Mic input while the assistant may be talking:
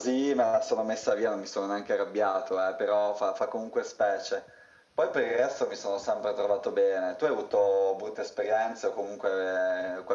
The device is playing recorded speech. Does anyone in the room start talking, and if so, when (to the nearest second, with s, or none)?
none